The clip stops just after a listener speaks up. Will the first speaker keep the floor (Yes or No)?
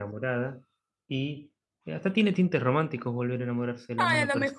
No